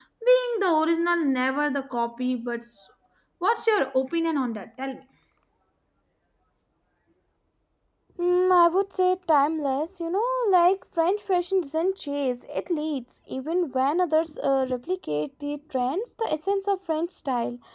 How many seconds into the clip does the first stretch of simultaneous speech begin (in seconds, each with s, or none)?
none